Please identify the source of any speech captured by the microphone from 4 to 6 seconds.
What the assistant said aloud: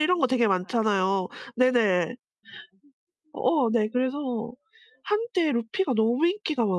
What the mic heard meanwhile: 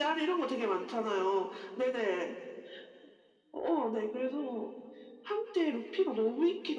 echo only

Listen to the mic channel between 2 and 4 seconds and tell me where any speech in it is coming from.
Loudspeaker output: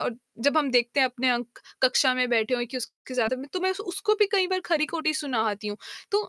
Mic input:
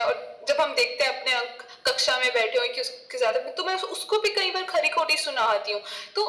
echo only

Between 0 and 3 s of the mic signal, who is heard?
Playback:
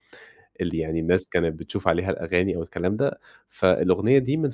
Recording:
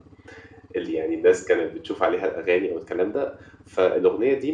echo only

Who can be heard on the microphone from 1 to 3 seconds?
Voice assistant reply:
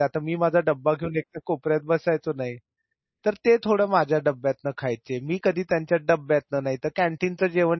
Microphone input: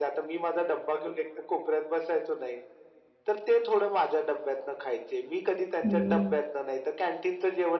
echo only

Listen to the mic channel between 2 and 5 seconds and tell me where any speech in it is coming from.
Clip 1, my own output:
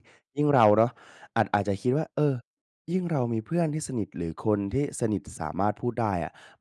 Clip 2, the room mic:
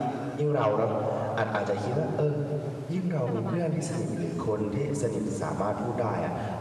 both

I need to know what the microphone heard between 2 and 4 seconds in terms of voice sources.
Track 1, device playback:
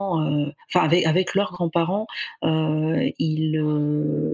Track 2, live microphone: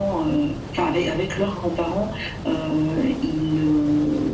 echo only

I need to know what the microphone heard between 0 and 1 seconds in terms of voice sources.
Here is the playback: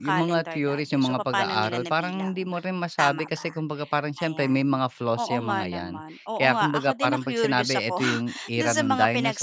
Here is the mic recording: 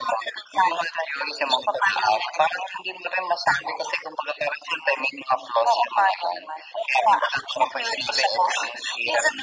echo only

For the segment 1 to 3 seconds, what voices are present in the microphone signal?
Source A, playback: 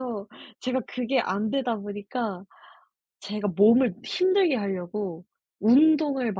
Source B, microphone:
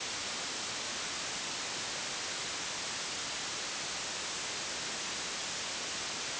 neither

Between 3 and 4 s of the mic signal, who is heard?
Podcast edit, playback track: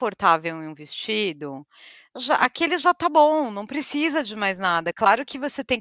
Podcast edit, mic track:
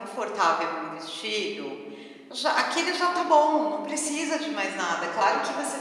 both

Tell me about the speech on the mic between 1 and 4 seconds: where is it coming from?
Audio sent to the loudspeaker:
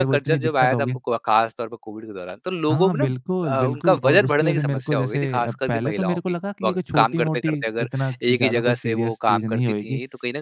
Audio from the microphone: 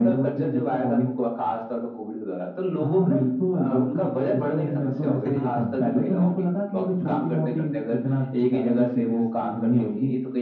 echo only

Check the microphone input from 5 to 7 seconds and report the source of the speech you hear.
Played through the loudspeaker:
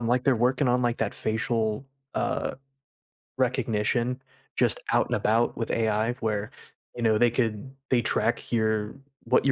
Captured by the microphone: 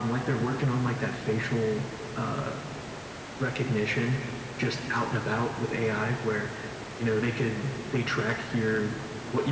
echo only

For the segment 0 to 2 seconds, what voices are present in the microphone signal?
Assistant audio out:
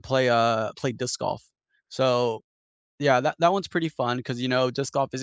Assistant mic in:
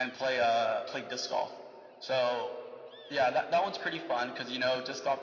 echo only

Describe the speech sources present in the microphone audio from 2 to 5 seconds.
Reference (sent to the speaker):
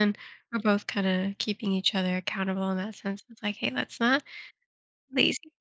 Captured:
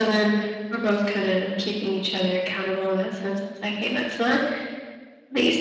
echo only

